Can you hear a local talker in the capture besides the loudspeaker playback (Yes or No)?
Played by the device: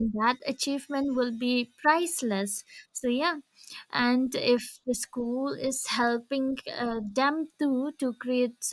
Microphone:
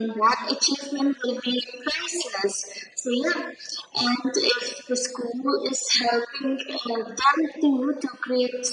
No